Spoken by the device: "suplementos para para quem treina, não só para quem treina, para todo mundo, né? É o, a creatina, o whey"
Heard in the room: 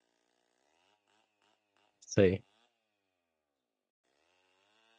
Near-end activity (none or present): present